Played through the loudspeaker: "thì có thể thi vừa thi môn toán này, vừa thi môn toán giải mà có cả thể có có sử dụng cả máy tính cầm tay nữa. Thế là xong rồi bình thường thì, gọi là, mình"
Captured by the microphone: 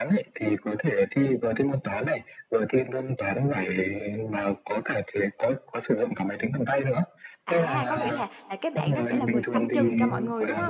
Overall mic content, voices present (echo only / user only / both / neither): both